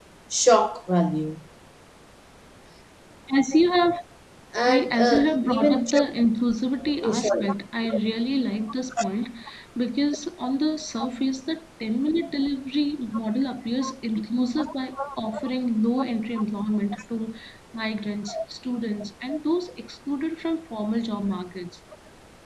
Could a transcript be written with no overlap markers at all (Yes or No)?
No